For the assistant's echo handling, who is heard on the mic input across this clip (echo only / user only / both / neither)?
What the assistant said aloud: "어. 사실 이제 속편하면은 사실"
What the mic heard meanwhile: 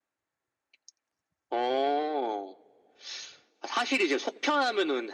echo only